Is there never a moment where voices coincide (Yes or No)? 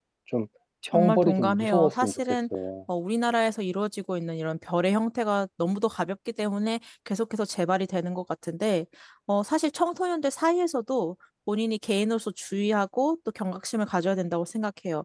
No